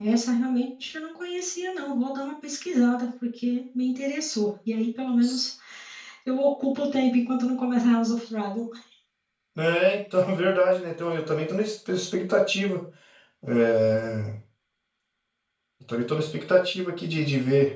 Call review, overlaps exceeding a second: none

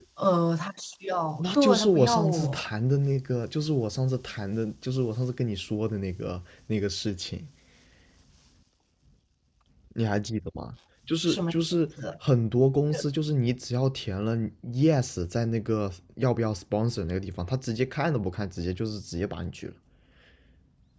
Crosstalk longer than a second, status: present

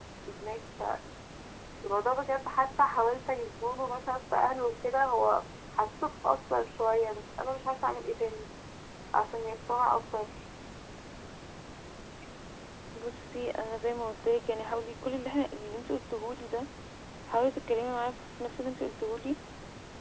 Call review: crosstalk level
none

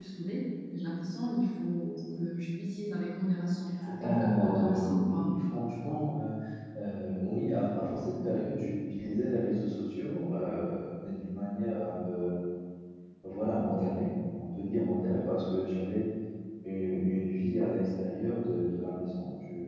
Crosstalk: present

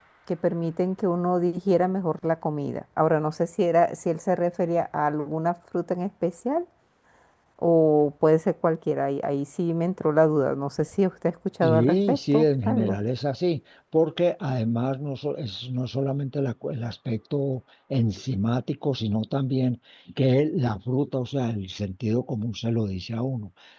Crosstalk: present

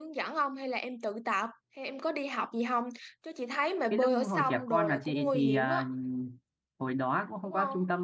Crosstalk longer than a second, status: present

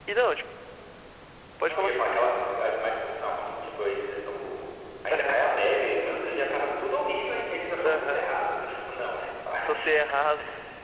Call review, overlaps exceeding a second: none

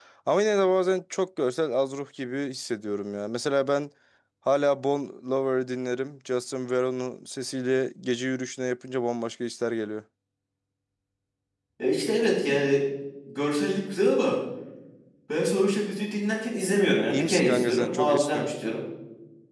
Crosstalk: present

